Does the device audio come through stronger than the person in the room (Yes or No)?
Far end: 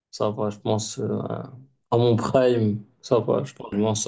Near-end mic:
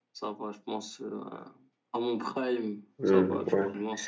No